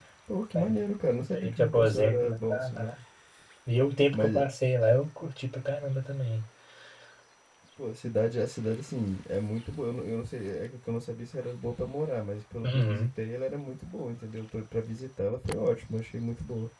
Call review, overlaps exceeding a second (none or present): present